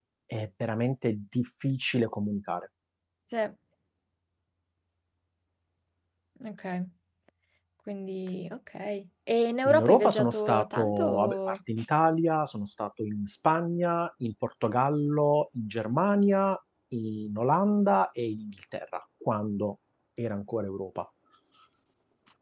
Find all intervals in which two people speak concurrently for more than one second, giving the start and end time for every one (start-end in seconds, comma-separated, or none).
9.7-11.5